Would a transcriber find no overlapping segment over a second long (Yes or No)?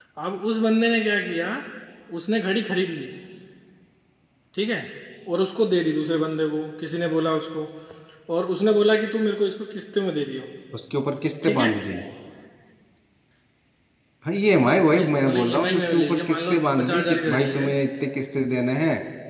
No